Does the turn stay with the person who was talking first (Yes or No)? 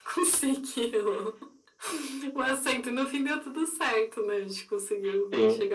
No